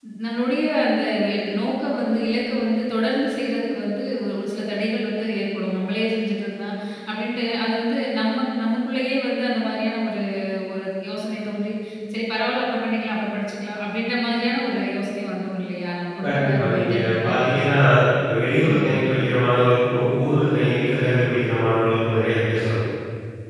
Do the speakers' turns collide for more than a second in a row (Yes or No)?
Yes